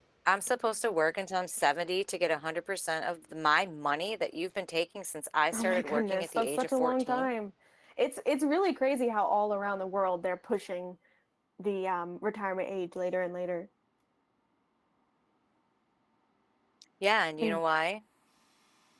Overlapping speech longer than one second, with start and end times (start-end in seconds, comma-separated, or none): 5.5-7.3